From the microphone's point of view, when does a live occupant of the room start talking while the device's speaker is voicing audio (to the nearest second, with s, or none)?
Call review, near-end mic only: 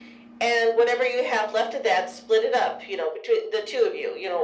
none